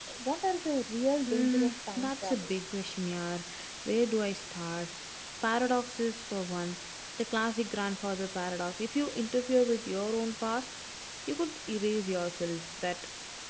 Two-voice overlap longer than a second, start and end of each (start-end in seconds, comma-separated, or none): 1.3-2.5